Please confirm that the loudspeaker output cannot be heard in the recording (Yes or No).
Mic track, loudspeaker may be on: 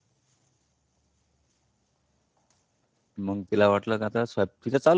Yes